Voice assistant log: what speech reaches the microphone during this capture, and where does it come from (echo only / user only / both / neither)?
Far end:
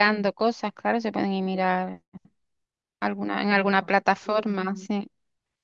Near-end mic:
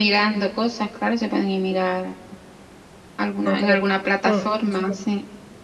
both